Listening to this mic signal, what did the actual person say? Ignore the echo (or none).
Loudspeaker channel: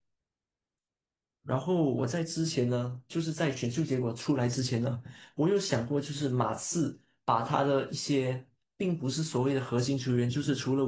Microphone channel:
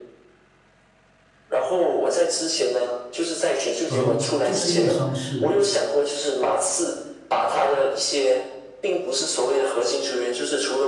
而就是因为伤势，